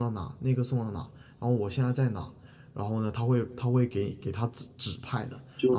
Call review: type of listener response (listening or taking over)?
taking over